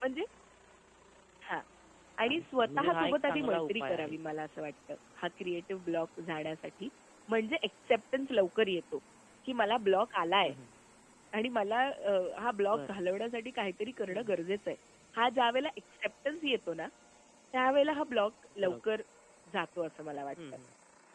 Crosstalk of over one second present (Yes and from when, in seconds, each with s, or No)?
Yes, from 2.2 s